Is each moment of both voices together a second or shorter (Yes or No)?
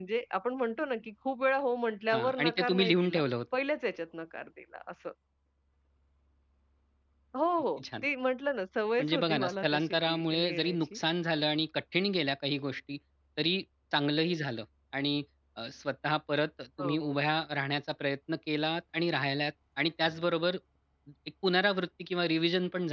No